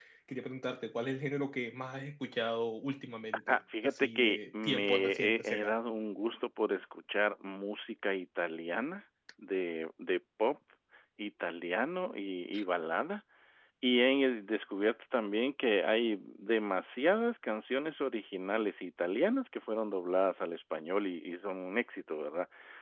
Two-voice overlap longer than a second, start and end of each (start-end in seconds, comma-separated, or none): 3.5-5.8